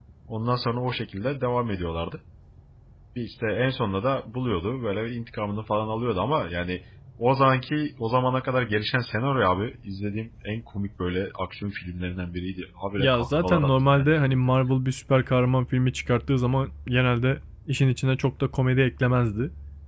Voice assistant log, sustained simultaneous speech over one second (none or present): present